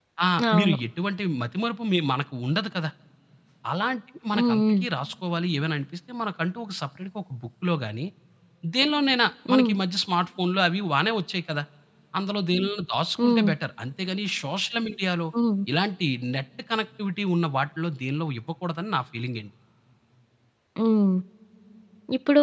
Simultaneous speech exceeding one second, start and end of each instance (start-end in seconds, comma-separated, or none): none